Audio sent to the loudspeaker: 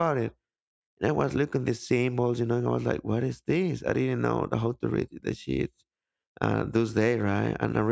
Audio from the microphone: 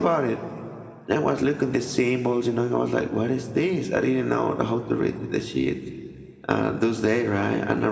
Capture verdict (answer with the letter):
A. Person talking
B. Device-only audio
B